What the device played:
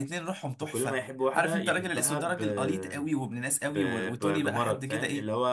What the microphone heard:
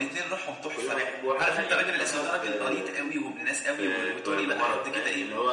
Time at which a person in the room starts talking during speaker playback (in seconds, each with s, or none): none